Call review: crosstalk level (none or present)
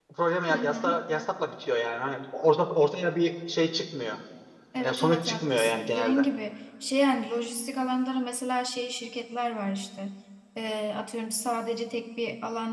present